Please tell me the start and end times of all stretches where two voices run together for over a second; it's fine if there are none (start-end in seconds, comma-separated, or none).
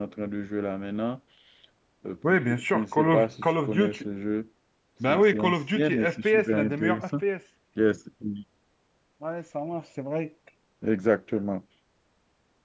2.4-4.0, 5.1-7.0